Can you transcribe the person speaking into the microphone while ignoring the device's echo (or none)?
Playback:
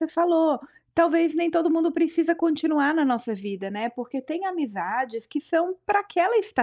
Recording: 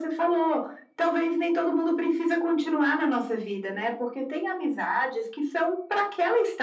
none